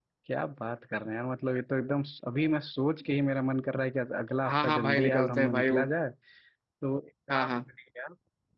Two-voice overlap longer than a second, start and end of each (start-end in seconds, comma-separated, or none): 4.4-5.8